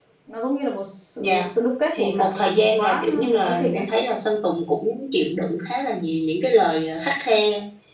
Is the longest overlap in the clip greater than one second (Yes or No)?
Yes